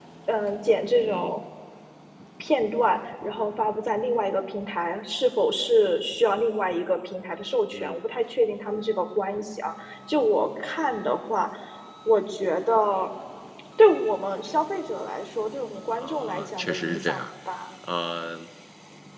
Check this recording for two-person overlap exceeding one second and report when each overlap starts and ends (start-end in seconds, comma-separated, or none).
16.0-17.2